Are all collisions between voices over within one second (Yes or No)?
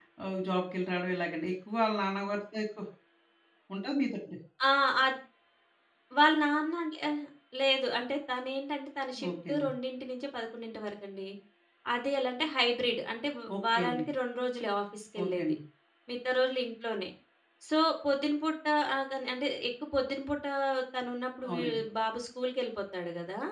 Yes